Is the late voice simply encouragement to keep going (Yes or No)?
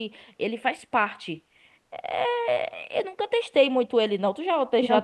No